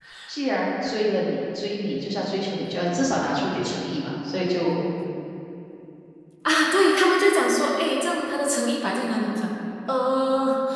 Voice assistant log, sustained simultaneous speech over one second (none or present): none